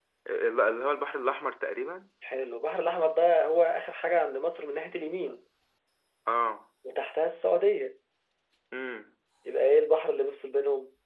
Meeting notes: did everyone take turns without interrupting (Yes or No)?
Yes